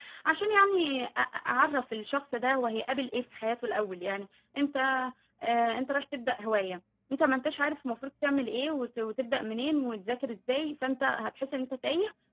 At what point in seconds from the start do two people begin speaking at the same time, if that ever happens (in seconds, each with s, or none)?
none